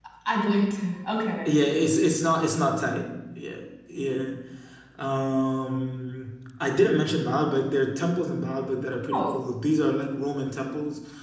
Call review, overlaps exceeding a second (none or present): none